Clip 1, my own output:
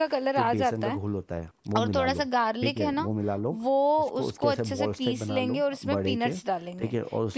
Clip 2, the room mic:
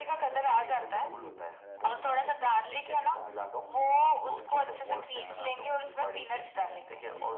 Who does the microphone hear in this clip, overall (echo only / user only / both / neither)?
both